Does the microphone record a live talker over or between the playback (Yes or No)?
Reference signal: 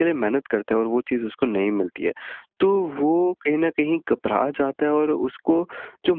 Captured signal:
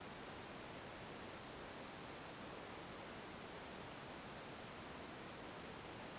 No